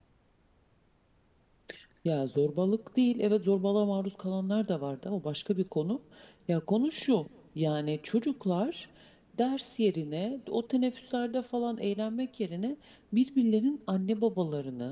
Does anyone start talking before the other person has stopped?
No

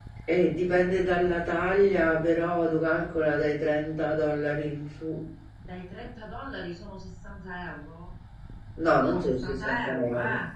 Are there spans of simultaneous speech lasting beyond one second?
Yes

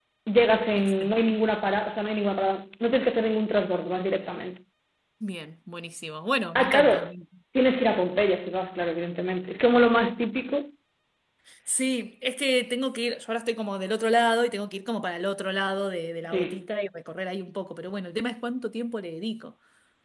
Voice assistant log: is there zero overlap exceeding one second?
Yes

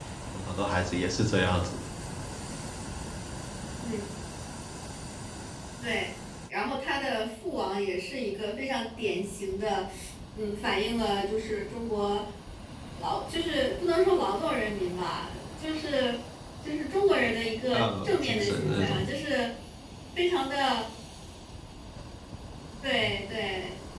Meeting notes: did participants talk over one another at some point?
Yes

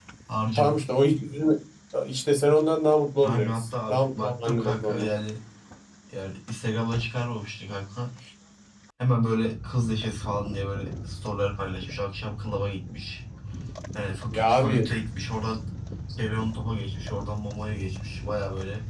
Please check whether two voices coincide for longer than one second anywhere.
Yes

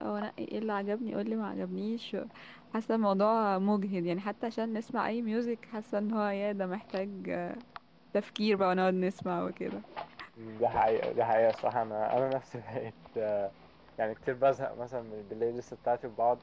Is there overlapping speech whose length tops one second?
No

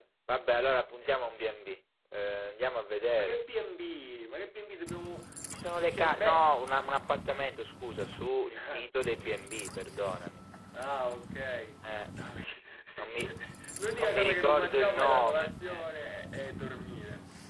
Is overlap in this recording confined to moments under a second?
No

